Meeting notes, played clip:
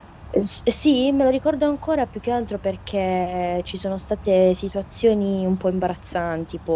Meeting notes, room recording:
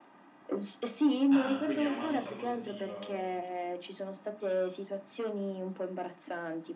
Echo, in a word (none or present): present